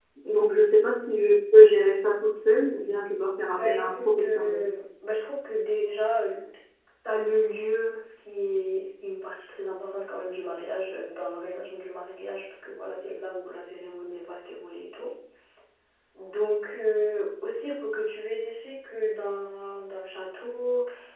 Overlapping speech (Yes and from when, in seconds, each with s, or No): Yes, from 3.4 s